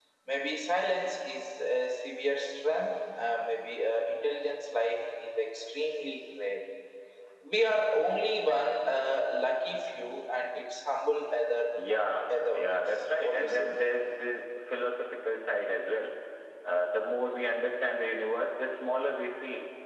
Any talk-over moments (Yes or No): Yes